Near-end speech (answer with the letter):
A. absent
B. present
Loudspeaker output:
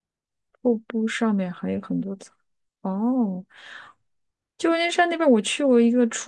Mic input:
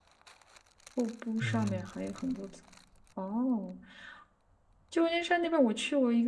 B